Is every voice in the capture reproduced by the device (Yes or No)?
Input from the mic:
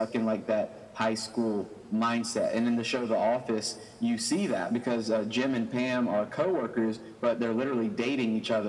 Yes